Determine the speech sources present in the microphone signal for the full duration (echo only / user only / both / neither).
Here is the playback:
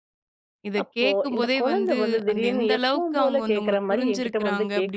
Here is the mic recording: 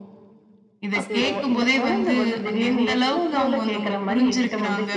both